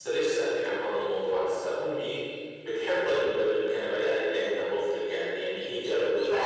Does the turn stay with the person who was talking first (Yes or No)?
No